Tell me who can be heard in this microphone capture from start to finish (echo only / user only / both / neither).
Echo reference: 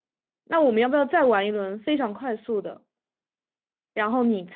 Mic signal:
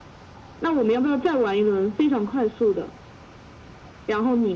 echo only